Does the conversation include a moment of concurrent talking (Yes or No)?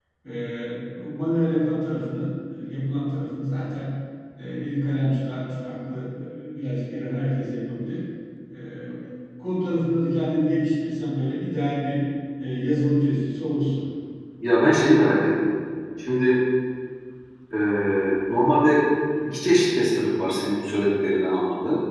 No